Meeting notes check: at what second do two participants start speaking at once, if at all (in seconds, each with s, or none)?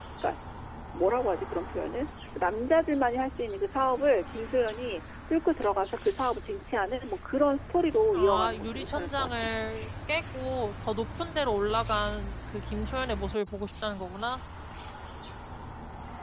8.1 s